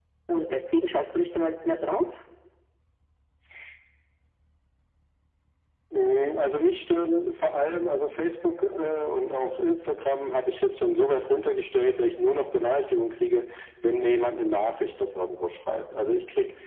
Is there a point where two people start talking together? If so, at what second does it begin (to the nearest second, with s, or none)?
none